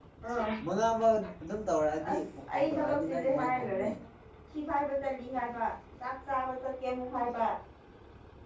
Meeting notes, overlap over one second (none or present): present